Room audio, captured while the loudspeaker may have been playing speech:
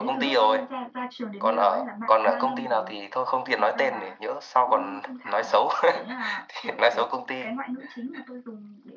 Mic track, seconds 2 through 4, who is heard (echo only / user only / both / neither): both